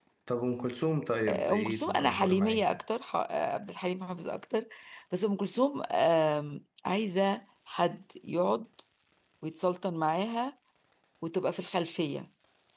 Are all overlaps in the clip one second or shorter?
No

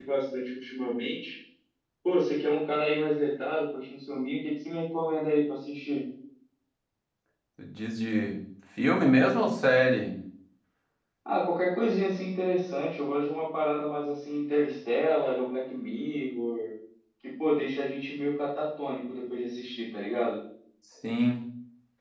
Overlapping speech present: No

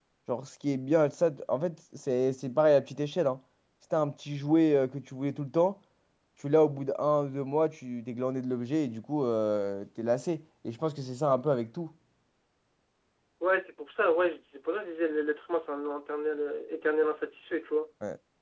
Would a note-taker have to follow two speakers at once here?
No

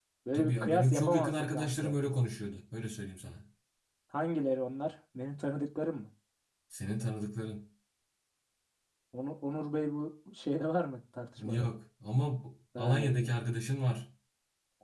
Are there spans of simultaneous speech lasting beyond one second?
Yes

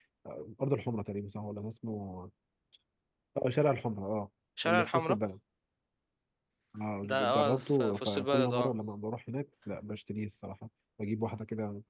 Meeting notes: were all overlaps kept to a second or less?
No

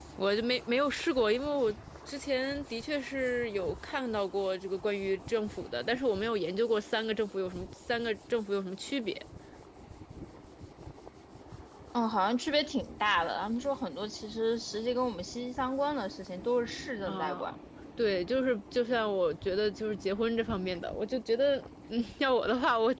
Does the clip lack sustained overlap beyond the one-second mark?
Yes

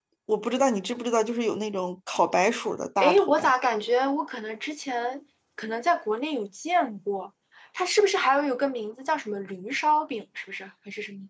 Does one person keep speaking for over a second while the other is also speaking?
No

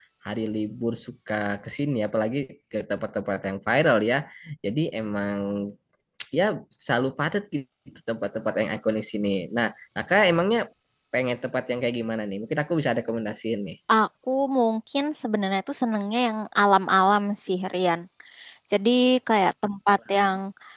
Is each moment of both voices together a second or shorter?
Yes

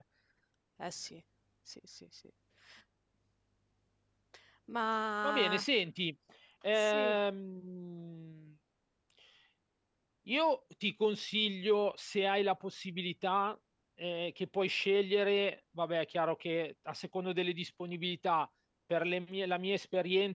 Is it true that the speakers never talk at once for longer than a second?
Yes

